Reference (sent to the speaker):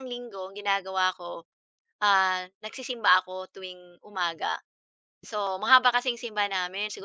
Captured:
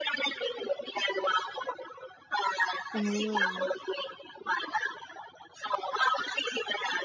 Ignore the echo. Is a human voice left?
Yes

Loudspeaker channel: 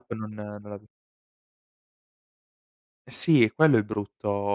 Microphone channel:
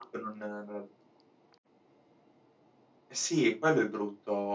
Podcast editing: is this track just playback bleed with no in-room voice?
Yes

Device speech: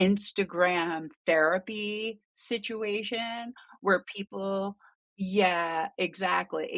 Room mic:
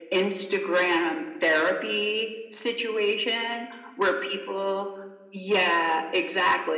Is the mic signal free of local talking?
Yes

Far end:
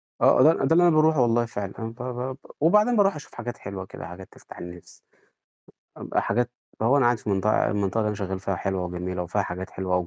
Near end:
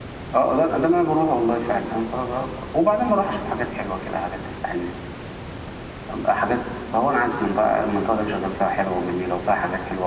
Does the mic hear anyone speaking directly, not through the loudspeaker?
No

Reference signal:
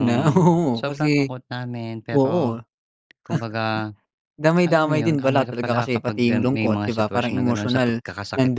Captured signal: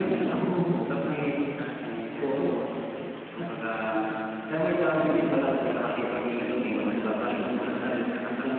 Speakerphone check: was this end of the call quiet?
Yes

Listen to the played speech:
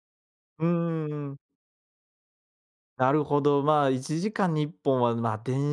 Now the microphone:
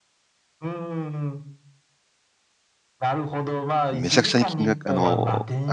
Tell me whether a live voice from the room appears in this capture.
Yes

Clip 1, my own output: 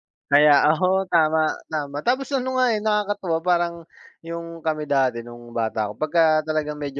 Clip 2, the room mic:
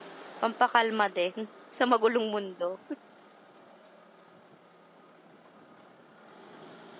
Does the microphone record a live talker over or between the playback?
Yes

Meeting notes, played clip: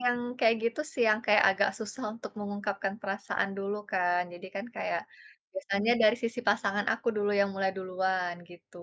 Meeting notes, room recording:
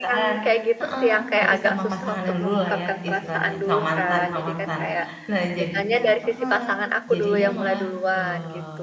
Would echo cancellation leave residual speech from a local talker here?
Yes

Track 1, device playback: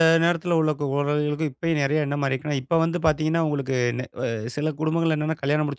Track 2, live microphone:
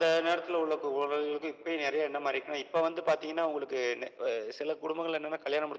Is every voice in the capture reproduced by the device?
Yes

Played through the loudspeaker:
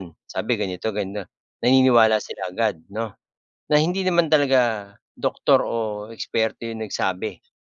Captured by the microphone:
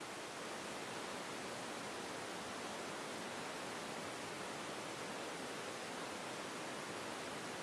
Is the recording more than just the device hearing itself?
No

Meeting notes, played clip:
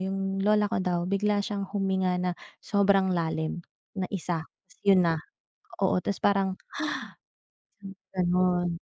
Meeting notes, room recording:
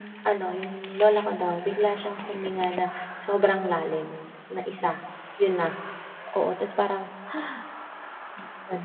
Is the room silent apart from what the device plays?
Yes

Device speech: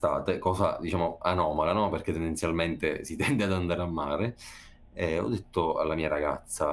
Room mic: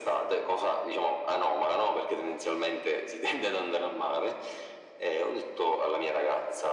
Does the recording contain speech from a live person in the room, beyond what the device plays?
No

